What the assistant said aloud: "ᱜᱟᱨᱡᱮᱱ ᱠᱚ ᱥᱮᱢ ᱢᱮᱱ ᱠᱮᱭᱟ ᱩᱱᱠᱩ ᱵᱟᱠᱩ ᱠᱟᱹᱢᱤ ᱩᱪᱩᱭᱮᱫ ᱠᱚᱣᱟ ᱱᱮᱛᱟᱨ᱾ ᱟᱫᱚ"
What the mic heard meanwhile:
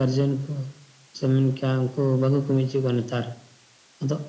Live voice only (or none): none